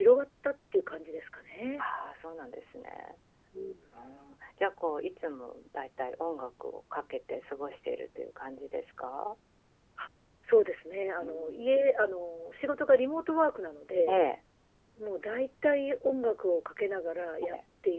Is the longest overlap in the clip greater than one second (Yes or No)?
No